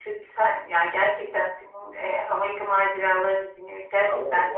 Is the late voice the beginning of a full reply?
Yes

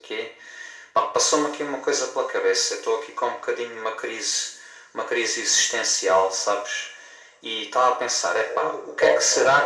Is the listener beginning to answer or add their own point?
No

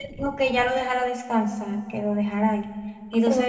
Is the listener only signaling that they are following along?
No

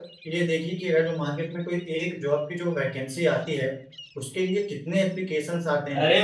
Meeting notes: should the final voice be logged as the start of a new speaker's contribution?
Yes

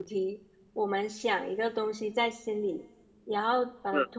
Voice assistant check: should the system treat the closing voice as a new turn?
No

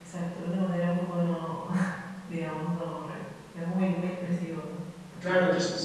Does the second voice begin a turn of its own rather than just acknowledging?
Yes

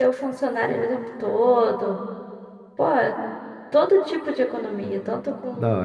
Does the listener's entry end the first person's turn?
No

